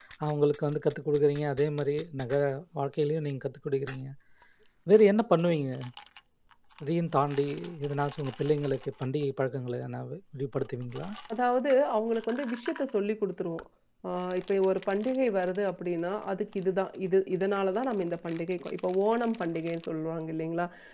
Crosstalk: none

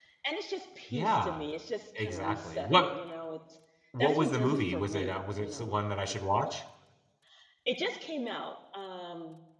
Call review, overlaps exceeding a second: present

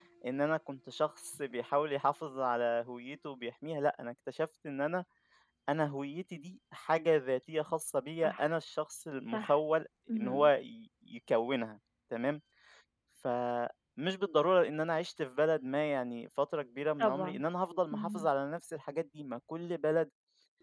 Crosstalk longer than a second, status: none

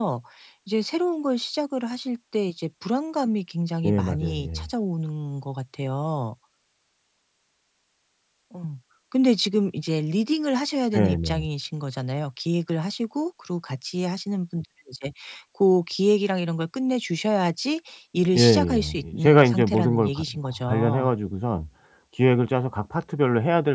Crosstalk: present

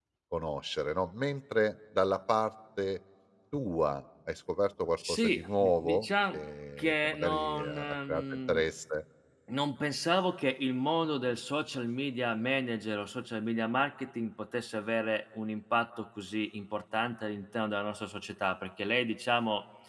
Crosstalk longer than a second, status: present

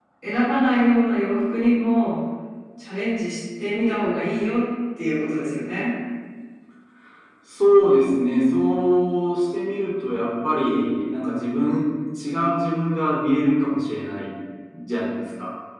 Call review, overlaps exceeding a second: none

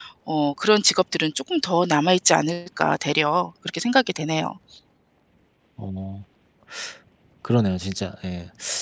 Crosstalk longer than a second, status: none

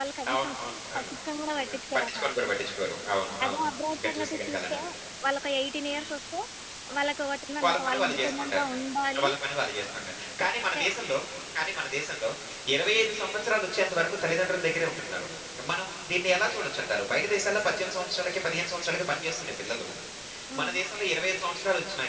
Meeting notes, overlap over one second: present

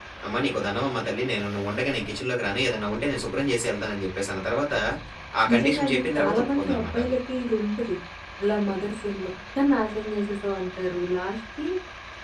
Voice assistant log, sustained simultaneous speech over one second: present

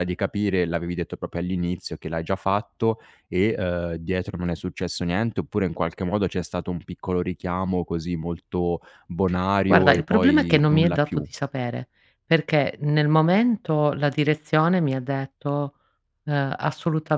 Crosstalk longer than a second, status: present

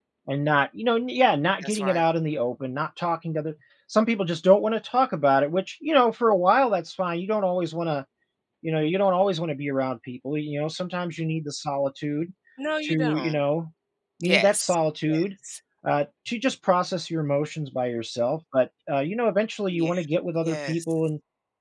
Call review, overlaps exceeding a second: none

